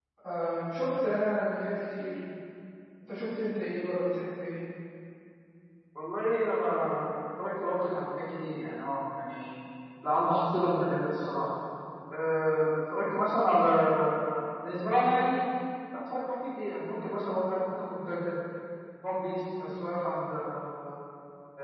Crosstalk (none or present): none